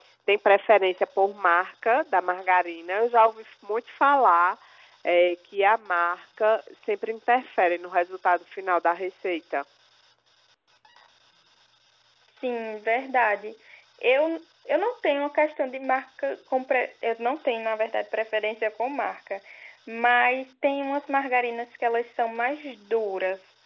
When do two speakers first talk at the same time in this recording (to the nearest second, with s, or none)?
none